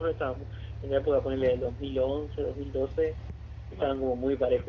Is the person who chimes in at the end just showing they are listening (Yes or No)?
Yes